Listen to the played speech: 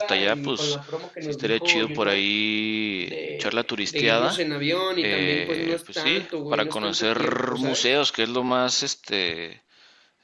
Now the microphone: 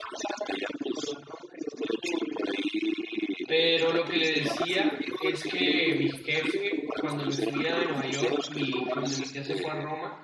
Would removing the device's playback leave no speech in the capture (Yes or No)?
No